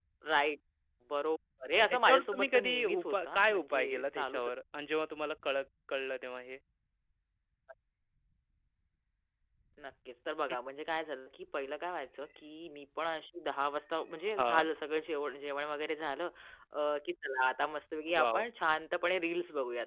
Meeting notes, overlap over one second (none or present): present